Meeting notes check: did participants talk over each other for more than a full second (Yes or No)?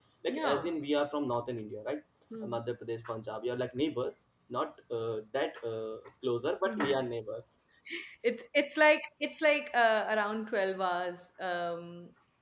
No